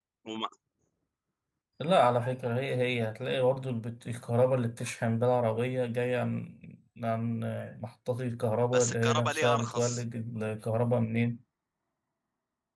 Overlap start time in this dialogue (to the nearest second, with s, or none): 9 s